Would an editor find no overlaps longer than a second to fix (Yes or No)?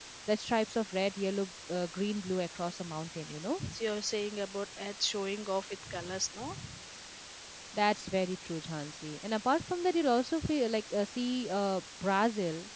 Yes